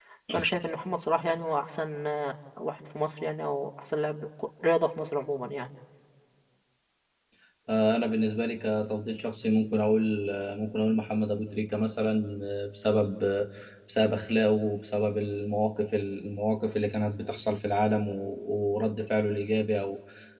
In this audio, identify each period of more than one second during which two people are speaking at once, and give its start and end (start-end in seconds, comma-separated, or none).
none